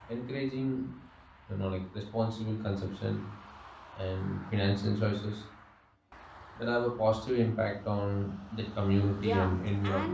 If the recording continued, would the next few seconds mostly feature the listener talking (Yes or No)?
Yes